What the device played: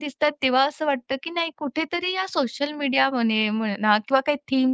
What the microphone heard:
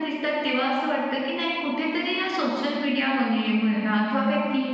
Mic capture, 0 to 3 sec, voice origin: echo only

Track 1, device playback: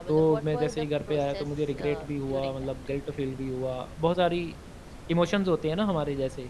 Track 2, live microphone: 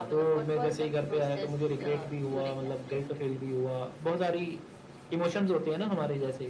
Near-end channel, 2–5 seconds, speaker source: echo only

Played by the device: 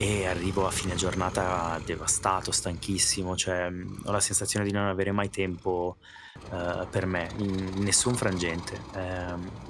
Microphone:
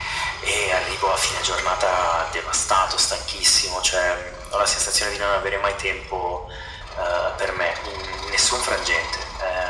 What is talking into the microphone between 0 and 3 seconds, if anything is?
echo only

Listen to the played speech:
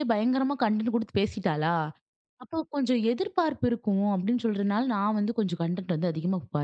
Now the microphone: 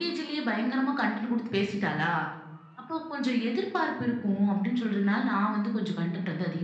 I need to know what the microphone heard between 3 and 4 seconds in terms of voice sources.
echo only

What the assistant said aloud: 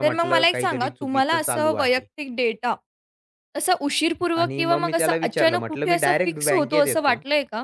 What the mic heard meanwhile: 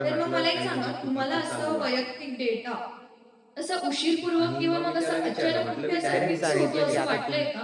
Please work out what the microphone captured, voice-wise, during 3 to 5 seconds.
echo only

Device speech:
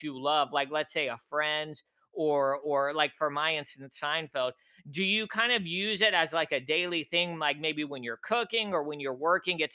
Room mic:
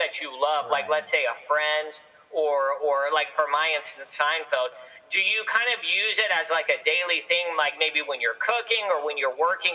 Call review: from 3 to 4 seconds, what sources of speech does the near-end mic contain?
echo only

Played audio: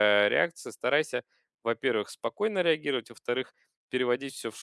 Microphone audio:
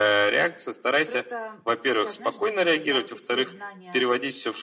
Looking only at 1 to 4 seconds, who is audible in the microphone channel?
both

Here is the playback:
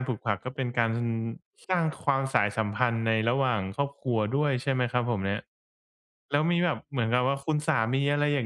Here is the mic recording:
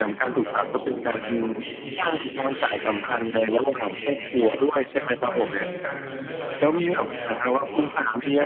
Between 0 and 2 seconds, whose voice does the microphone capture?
both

